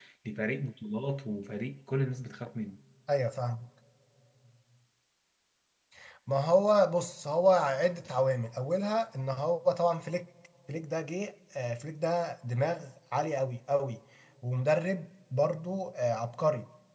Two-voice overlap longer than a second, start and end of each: none

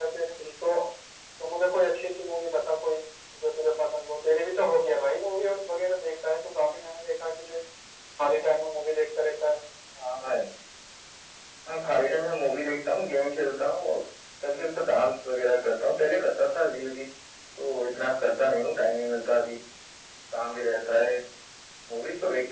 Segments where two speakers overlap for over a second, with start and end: none

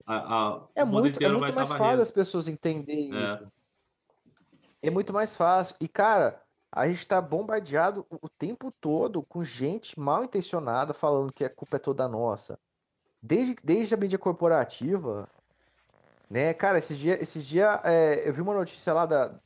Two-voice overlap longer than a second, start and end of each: 0.8-2.0

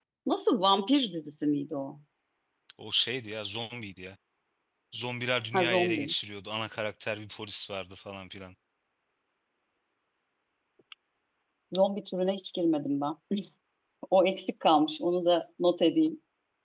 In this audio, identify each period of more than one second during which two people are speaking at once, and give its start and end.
none

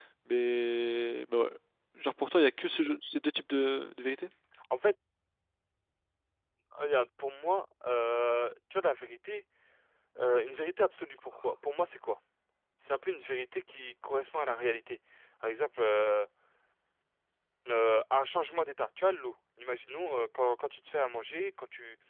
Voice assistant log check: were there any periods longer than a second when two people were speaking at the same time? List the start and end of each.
none

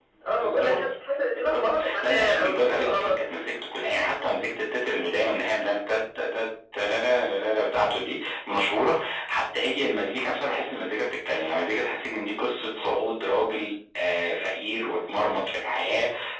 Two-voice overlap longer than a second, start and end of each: 1.3-3.2

